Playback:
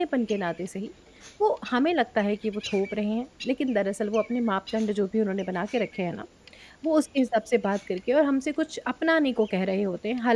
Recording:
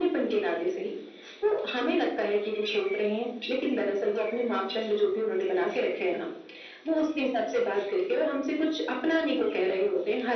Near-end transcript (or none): none